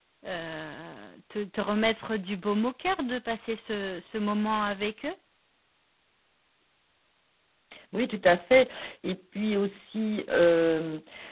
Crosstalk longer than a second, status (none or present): none